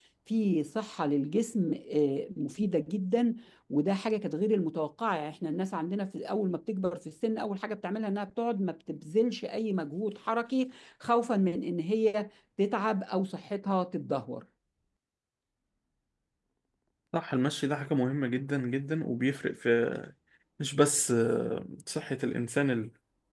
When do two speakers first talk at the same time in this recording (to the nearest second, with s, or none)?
none